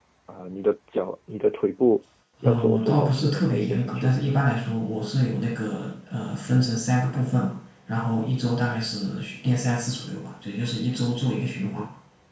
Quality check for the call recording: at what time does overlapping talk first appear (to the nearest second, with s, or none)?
2 s